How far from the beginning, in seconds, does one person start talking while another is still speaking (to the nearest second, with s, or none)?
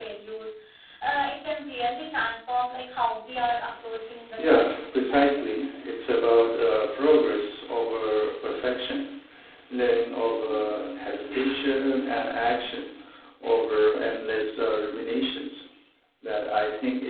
4 s